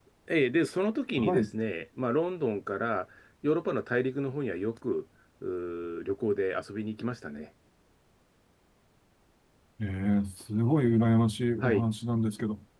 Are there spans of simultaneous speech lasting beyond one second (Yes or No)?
No